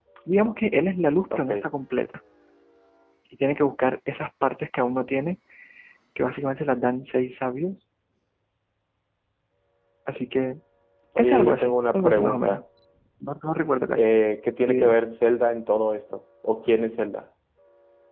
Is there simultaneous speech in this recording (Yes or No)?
Yes